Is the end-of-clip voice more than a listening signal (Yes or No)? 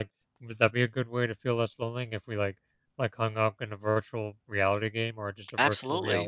Yes